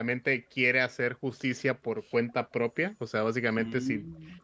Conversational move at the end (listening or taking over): listening